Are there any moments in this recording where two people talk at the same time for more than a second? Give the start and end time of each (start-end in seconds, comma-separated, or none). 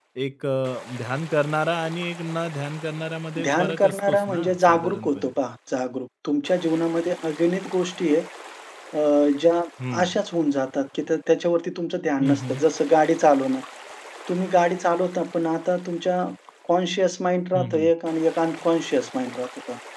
3.4-5.3